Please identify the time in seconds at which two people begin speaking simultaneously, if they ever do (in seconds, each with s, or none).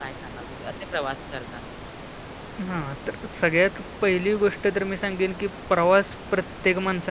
none